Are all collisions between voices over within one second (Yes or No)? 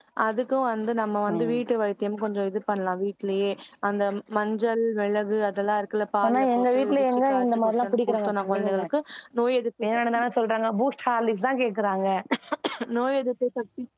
No